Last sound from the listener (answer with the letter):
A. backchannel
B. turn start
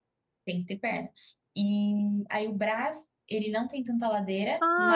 B